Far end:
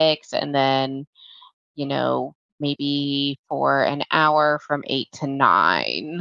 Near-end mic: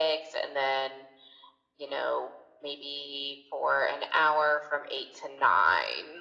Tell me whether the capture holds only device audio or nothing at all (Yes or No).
Yes